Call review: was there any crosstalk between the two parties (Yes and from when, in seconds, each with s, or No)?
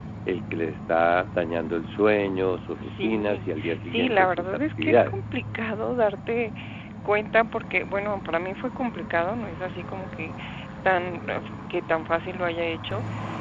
Yes, from 2.8 s